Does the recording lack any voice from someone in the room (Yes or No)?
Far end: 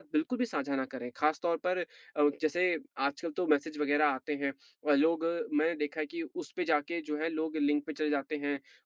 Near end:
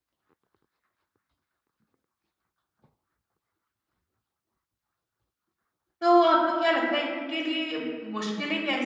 No